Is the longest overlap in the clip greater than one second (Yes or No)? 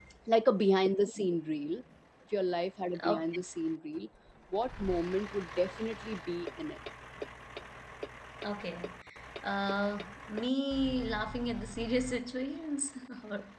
No